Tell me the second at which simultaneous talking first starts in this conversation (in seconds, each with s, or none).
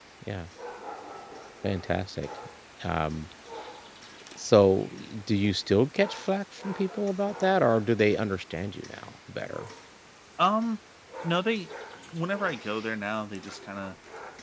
none